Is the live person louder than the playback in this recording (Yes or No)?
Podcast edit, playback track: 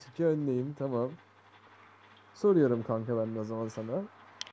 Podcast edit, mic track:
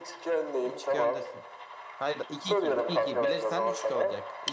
No